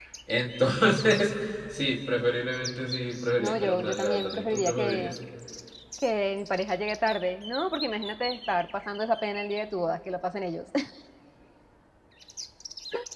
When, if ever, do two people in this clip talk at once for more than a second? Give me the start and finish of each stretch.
3.4-5.1

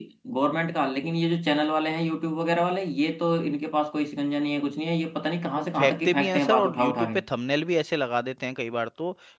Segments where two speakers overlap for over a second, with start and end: 5.6-7.2

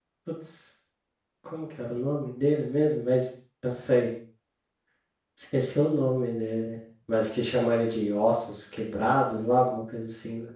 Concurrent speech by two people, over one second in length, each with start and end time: none

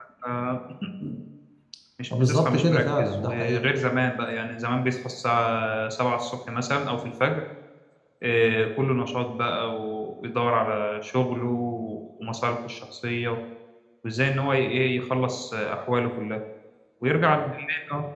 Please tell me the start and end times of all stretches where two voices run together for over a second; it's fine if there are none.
2.2-3.7

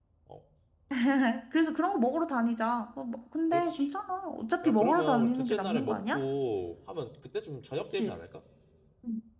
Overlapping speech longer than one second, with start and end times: 4.7-6.2

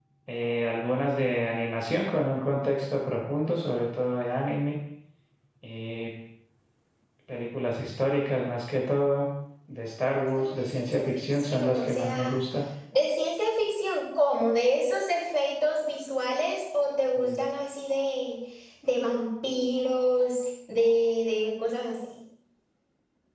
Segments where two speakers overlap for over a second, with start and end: 10.1-12.4

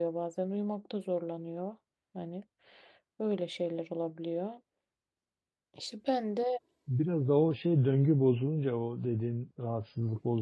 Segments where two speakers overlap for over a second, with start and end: none

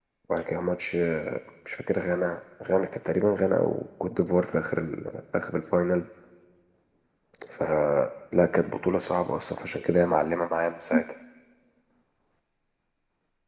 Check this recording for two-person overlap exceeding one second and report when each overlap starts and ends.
none

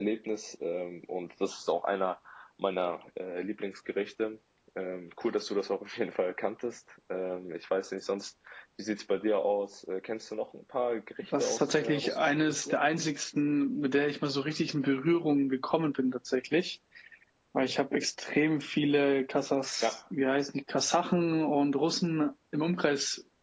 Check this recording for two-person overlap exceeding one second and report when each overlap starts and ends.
11.4-12.8

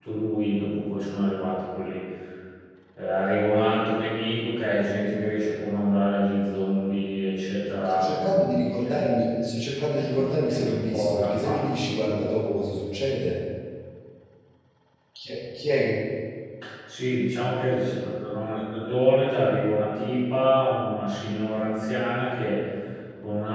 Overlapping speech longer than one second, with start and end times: 7.8-9.1, 10.0-11.8

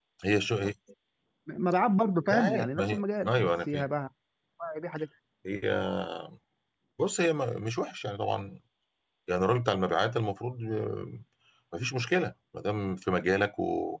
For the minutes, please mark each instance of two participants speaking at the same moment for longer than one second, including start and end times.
2.3-3.9

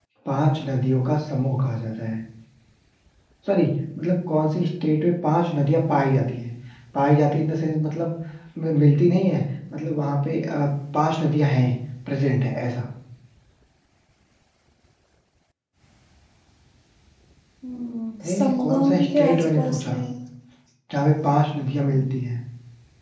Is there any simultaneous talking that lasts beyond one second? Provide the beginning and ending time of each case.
18.2-20.0

